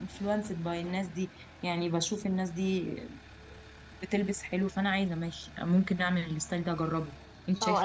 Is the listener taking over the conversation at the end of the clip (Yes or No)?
Yes